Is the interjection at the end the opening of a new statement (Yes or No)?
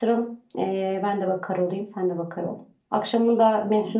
No